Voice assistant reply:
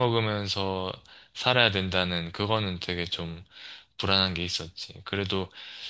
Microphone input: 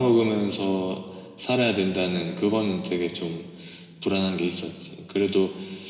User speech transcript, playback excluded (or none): none